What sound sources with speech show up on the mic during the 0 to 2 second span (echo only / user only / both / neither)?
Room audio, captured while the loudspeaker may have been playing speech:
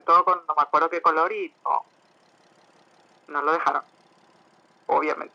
echo only